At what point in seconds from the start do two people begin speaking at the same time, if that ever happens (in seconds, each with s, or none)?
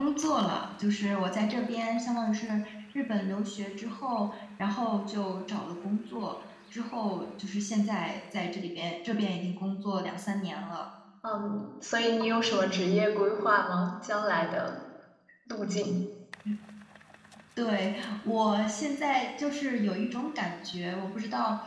none